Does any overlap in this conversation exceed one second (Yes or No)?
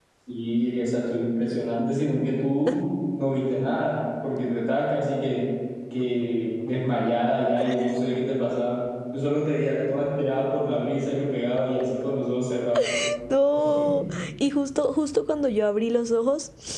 No